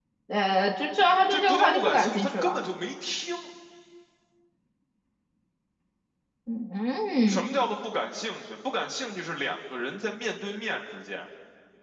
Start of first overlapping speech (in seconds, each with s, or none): 1.3 s